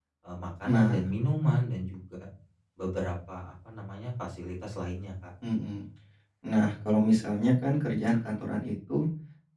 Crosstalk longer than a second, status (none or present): none